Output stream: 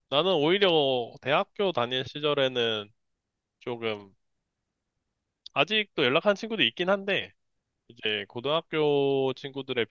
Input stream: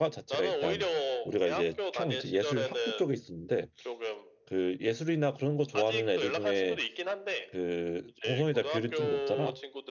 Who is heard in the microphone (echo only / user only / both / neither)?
both